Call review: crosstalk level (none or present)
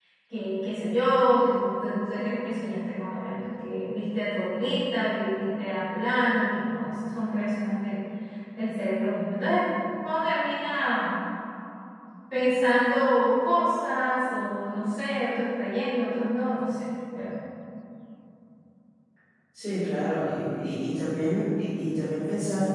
none